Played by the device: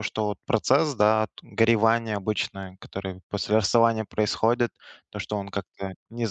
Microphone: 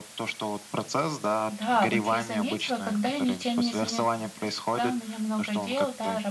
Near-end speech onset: 1.5 s

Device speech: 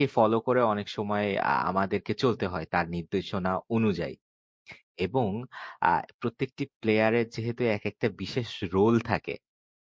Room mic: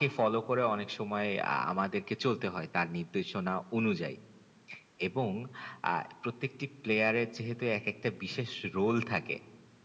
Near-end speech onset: none

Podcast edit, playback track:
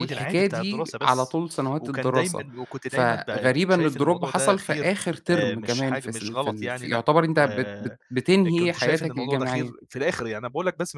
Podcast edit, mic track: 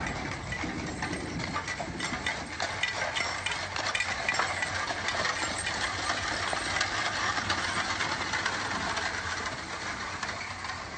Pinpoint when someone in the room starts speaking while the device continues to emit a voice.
none

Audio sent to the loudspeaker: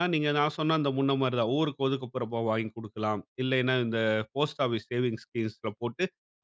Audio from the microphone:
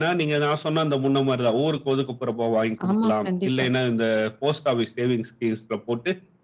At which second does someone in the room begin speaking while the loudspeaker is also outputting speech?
2.9 s

